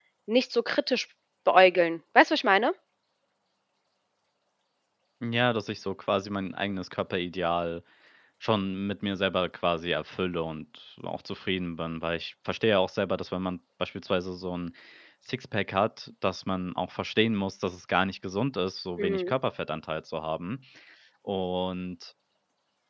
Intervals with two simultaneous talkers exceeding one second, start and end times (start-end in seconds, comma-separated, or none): none